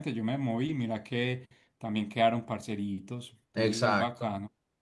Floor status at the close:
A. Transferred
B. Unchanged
A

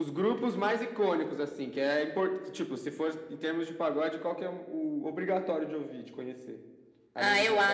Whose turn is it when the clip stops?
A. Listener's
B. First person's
A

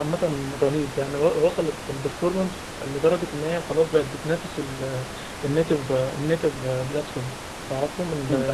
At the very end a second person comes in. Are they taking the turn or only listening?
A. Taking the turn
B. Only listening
B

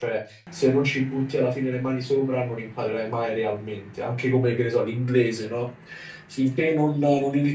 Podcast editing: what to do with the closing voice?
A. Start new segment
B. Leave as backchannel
B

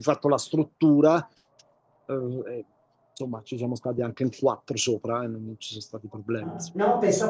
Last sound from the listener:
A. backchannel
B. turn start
B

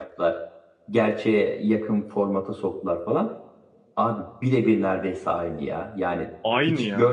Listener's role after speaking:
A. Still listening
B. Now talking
A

